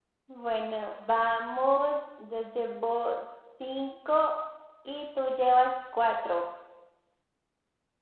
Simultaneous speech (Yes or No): No